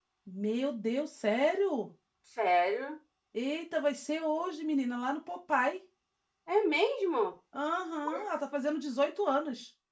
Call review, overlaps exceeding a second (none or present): none